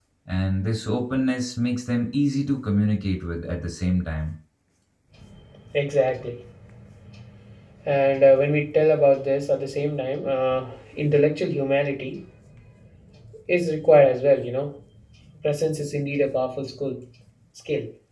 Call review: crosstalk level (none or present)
none